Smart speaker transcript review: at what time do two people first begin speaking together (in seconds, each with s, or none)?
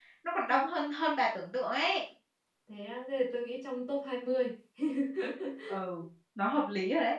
none